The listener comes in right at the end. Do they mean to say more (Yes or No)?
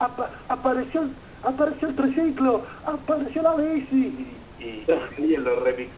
No